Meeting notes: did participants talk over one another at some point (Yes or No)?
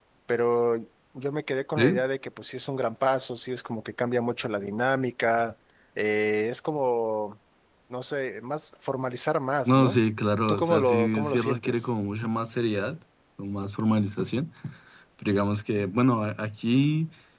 Yes